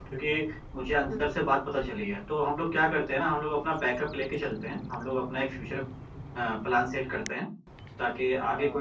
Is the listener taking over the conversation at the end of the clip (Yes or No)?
No